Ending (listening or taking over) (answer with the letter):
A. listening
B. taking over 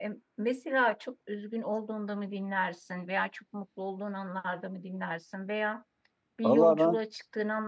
A